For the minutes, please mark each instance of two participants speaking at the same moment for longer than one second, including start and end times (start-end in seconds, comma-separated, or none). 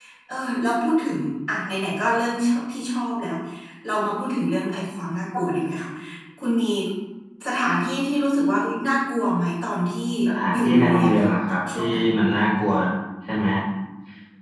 10.5-12.1